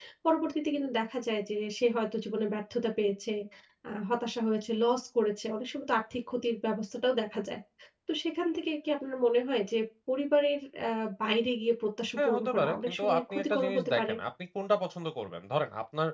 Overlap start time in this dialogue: 12.2 s

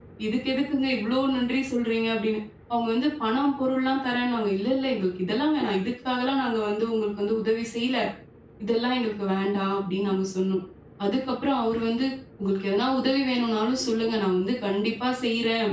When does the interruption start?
none

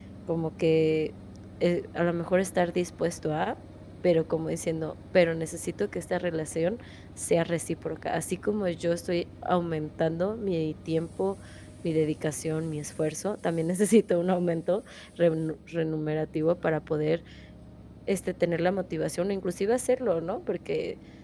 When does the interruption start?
none

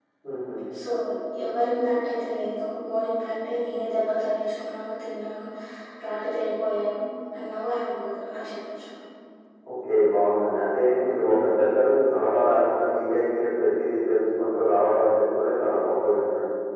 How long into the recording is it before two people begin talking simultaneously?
none

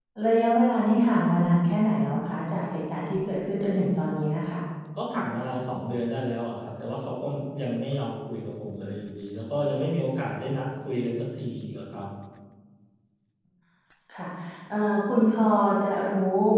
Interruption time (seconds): none

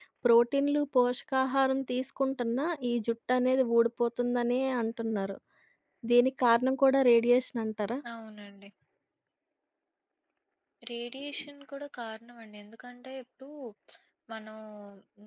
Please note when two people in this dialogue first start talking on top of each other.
none

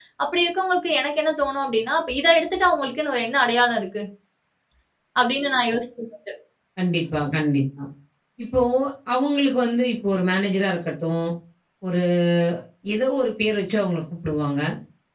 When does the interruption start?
none

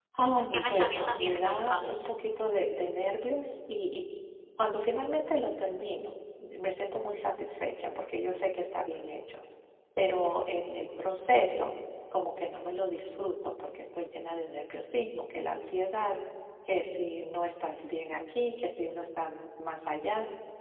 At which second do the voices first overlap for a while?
0.6 s

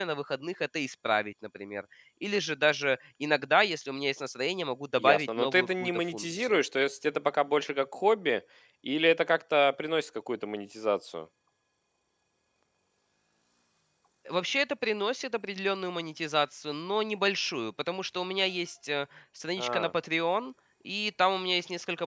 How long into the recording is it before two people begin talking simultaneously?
5.0 s

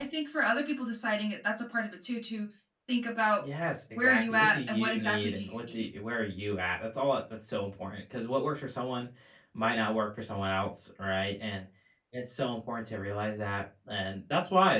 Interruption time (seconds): 4.0 s

